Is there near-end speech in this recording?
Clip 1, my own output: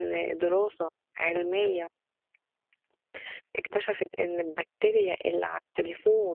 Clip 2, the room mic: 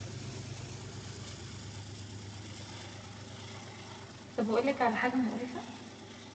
Yes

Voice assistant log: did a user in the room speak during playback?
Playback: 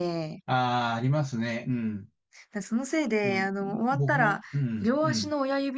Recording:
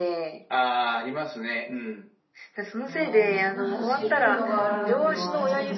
Yes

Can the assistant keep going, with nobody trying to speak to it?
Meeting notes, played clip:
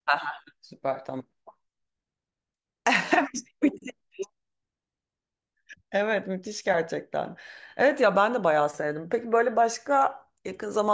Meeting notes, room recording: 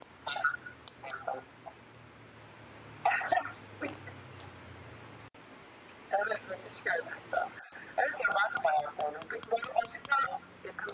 Yes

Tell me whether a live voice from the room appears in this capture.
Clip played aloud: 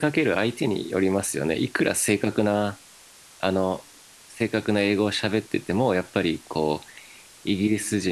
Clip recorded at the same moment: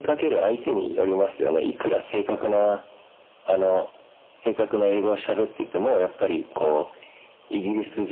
No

